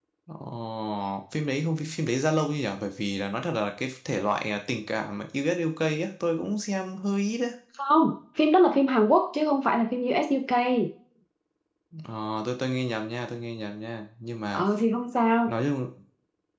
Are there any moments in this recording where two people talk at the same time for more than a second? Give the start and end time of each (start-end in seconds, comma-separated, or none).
none